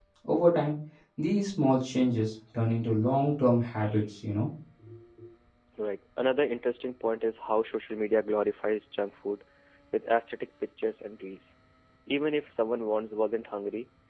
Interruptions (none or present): none